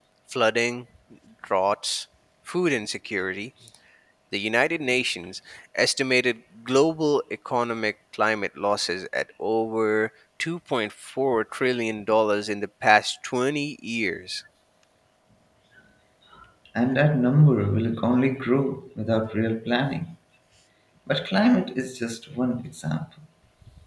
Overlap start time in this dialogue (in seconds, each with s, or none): none